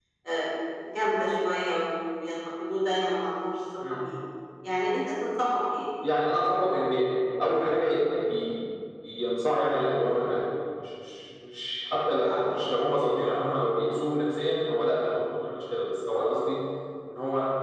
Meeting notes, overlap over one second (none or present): none